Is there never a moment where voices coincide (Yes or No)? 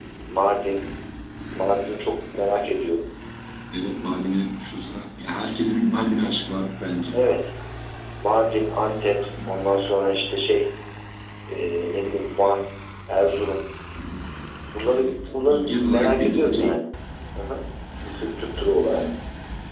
No